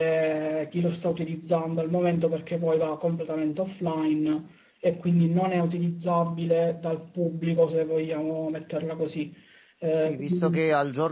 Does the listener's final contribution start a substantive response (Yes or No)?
Yes